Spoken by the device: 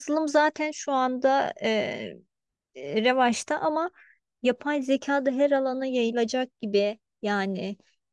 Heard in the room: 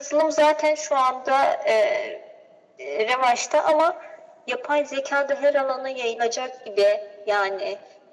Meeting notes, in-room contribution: none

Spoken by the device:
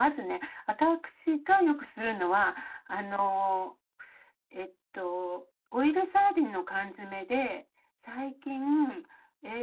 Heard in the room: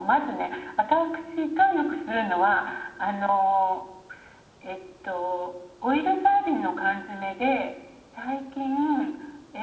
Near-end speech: none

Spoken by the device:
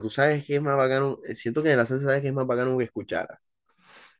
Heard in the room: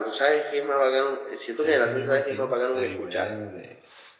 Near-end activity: present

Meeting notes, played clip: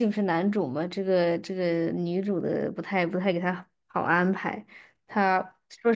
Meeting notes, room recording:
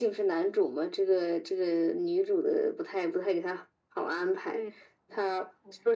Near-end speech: present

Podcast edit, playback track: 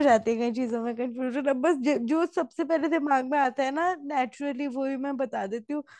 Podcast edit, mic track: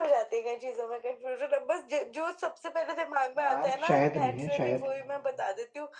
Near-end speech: present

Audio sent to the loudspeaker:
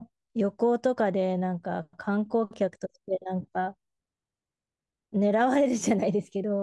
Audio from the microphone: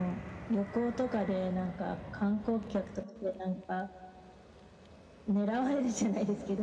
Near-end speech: none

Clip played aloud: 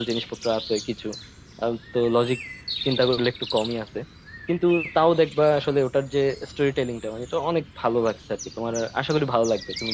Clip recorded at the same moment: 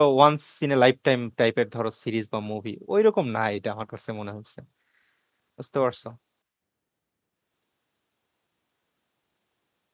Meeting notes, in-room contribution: present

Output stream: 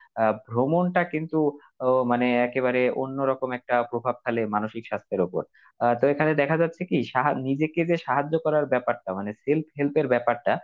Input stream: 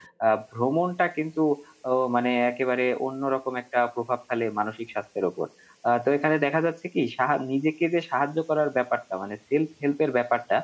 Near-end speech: none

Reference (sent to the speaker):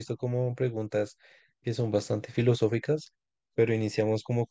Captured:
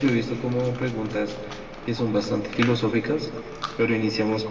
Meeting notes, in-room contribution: none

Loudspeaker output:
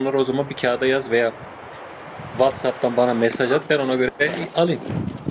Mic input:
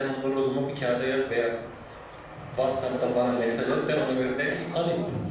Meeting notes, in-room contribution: present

